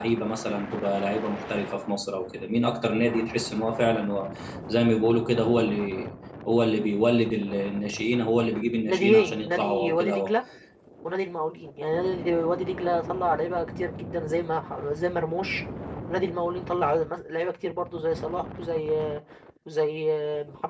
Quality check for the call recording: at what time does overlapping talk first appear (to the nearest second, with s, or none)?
9 s